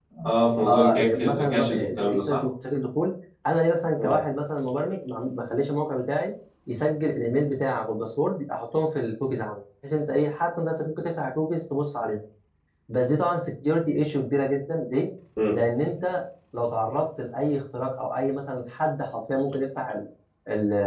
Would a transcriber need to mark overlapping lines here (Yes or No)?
Yes